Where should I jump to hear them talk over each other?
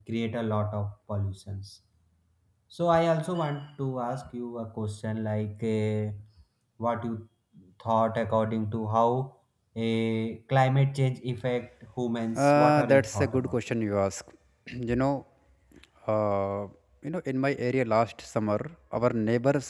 12.4 s

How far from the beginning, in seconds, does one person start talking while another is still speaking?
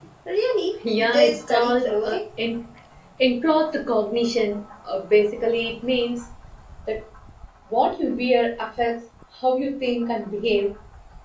1.0 s

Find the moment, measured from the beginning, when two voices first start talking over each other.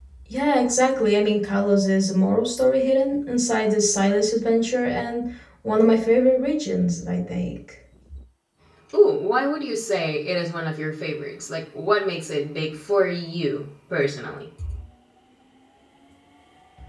none

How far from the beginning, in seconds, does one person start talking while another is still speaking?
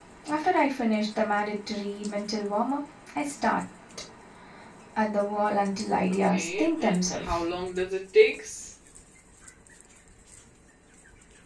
6.1 s

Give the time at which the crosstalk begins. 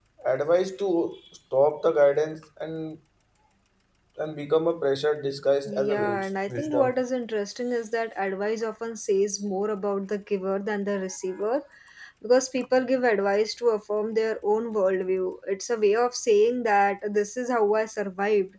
5.7 s

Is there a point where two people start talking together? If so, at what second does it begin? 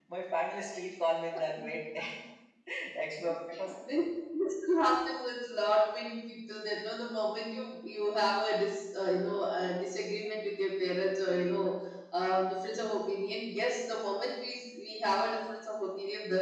none

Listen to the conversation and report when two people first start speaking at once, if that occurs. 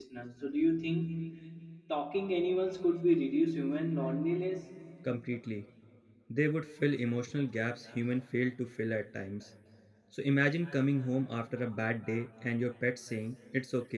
none

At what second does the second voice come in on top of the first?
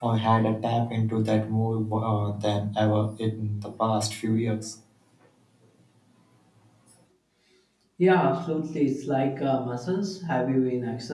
none

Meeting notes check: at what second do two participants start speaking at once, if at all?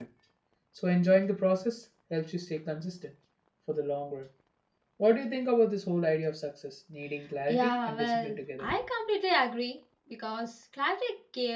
7.5 s

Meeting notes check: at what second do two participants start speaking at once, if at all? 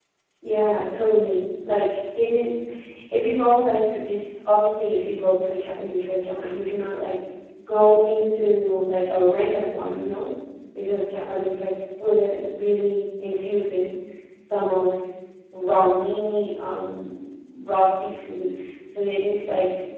none

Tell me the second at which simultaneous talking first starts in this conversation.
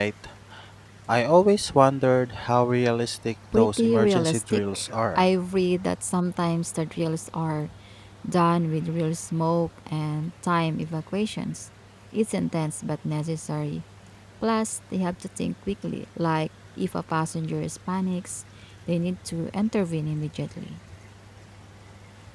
3.5 s

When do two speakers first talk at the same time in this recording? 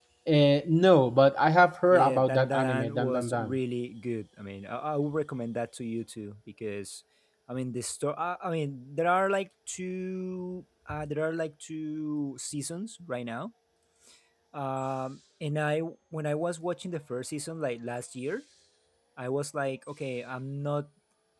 1.9 s

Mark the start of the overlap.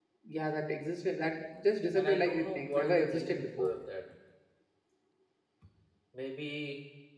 1.9 s

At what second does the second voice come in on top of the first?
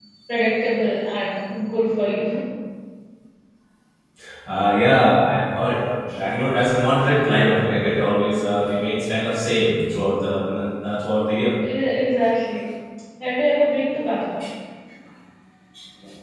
none

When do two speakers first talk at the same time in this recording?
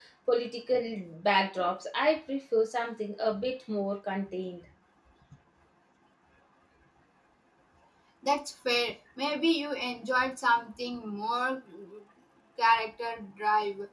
none

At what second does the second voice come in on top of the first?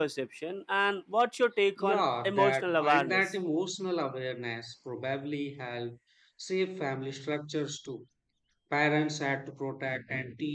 1.8 s

